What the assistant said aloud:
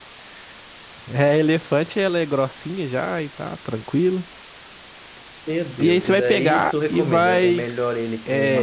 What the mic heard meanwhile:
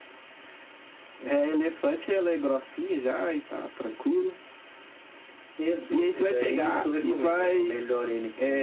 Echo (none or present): present